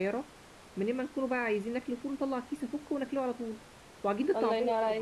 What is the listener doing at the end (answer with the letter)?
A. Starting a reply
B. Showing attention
A